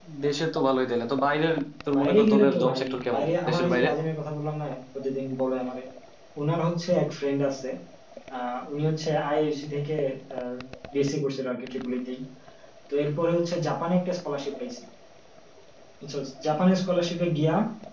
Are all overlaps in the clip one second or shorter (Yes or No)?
No